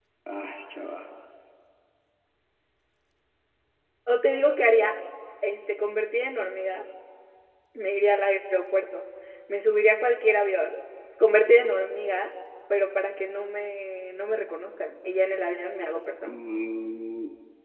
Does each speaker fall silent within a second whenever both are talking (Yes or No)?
Yes